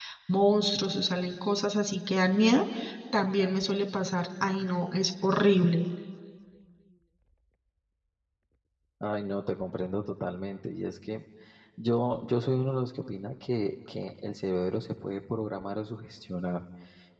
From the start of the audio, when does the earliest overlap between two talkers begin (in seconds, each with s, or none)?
none